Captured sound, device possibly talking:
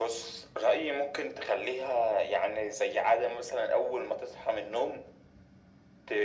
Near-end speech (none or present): none